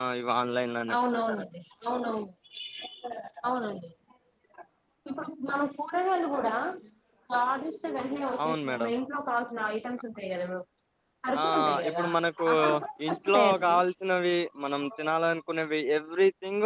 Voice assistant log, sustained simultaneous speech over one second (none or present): present